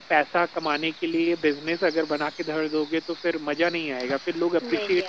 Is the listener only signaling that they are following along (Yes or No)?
Yes